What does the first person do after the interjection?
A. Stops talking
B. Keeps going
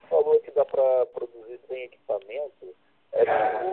B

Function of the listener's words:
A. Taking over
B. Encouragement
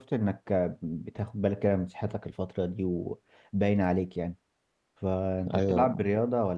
B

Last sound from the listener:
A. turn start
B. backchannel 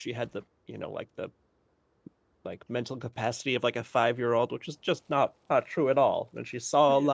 B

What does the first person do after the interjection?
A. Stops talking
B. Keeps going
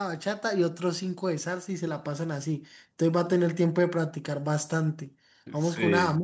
B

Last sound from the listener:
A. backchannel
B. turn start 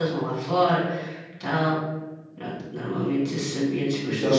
B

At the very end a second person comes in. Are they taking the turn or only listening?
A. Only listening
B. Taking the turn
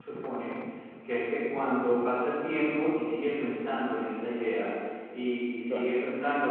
A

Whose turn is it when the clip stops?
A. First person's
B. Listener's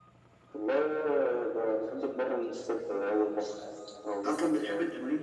B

